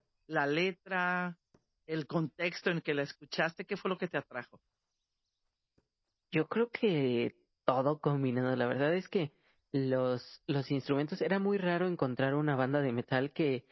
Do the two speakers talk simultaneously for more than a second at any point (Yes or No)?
No